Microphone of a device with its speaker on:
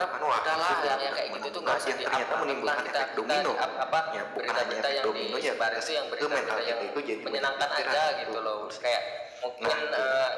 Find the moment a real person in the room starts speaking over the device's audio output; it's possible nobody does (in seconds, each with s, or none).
none